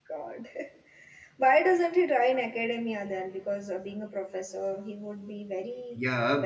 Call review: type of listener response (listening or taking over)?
taking over